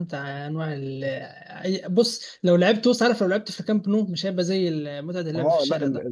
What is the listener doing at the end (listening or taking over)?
taking over